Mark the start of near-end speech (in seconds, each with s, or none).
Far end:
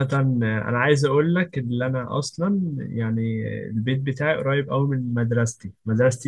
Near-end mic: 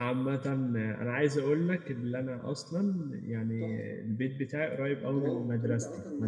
3.6 s